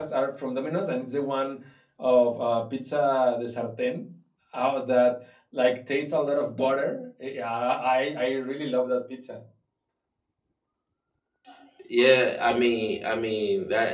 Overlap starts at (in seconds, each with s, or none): none